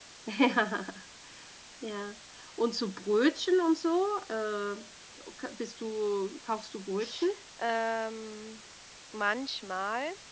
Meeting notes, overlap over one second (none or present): none